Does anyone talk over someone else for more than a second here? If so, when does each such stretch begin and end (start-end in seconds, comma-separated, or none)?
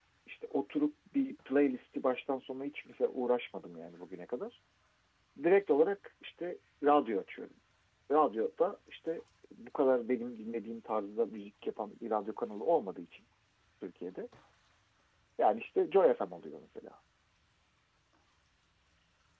none